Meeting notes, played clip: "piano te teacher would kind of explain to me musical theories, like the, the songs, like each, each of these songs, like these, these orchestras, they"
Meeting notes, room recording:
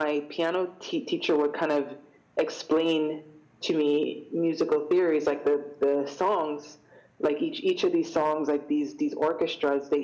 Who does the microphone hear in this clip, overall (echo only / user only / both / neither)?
echo only